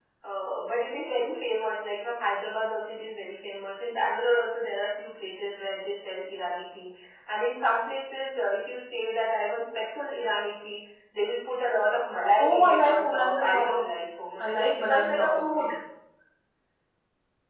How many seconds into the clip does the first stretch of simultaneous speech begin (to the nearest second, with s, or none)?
12 s